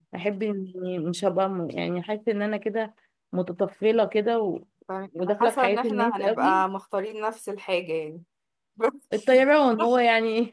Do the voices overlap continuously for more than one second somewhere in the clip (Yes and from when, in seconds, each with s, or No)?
Yes, from 5.2 s